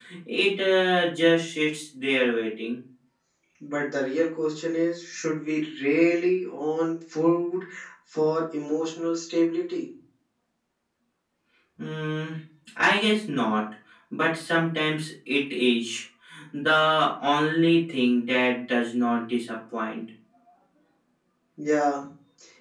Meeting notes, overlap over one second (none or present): none